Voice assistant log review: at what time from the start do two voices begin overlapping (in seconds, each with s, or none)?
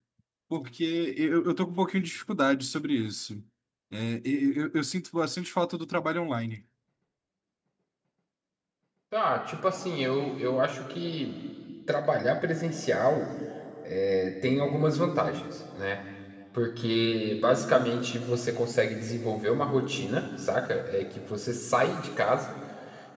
none